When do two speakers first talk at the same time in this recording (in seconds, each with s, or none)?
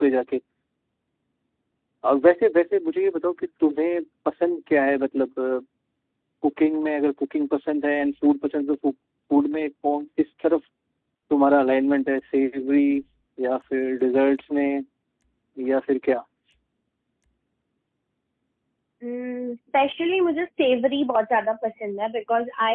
none